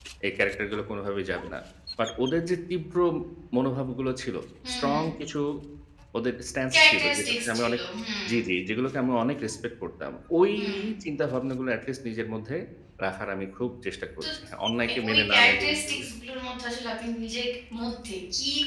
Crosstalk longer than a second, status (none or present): present